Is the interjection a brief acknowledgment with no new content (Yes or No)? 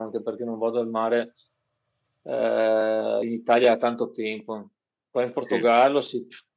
Yes